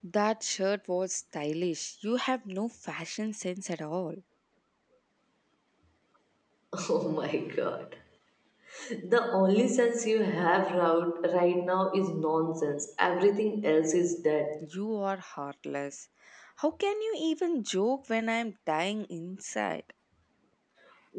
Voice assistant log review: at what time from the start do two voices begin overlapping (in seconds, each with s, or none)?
none